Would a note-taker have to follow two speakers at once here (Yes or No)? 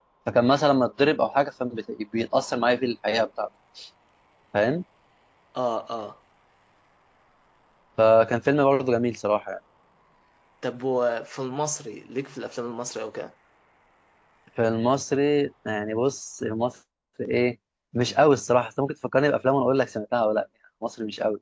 No